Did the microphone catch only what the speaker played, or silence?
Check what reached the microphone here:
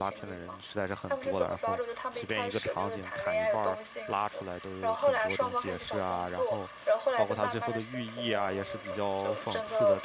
No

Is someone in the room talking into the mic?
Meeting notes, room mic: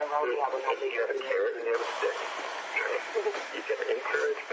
No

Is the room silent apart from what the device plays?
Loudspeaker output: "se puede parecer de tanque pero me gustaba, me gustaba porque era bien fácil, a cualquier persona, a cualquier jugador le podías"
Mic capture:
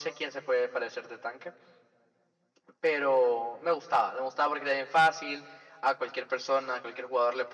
Yes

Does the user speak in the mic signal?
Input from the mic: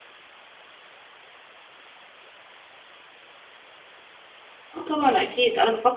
Yes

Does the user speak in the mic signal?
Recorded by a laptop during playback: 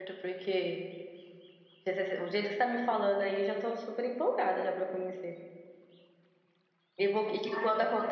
Yes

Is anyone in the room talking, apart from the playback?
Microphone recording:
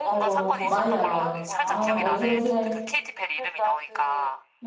Yes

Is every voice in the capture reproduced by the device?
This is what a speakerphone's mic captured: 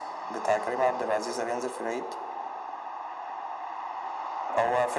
Yes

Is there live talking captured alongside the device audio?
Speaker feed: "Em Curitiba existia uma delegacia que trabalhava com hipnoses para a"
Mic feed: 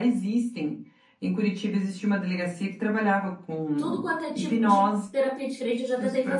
Yes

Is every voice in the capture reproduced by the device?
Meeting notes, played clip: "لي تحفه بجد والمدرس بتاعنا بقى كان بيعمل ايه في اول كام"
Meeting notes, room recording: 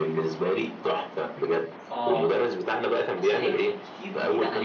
No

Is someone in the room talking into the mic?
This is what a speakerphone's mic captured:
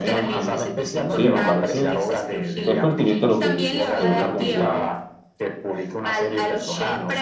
Yes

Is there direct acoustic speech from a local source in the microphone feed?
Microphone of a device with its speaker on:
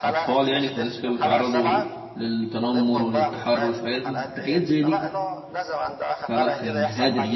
Yes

